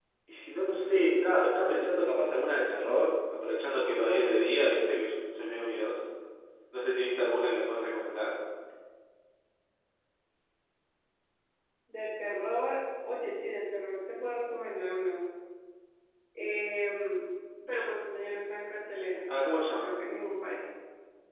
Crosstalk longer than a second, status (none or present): none